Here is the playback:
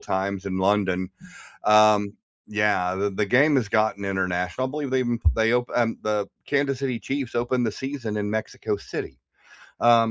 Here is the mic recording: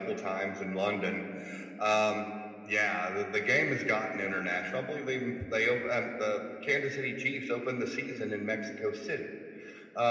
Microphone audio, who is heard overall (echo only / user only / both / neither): echo only